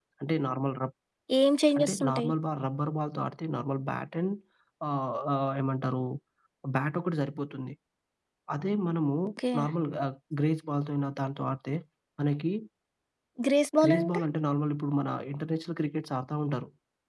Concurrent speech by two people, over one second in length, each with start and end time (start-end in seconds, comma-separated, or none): none